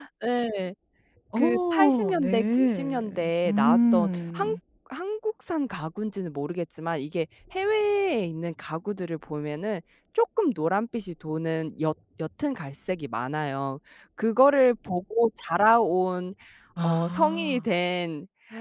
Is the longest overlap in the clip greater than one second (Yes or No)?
Yes